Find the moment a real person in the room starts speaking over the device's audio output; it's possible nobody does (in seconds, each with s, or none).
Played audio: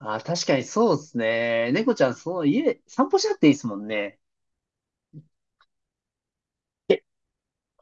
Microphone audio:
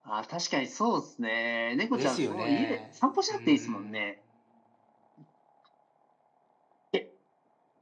1.9 s